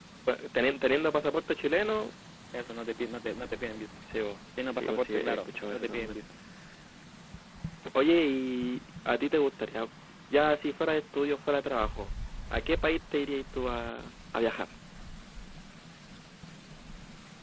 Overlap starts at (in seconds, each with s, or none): 4.8 s